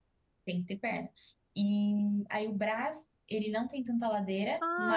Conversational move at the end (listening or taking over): taking over